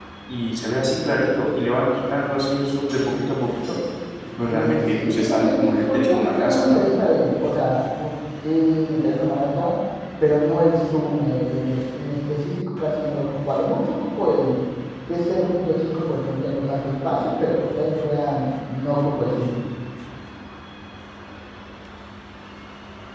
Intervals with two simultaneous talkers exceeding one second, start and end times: 4.5-6.8

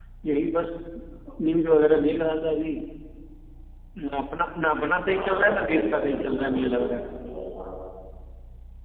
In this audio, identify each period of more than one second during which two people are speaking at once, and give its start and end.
5.1-7.0

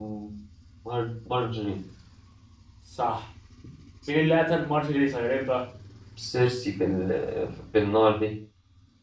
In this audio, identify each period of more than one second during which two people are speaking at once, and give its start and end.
none

